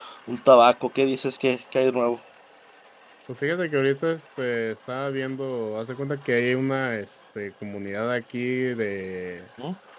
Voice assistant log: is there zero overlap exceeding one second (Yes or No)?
Yes